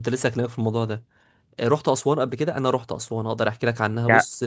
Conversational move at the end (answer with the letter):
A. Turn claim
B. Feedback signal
A